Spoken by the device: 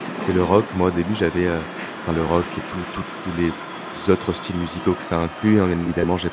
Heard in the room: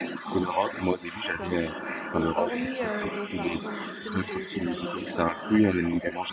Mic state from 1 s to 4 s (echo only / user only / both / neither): both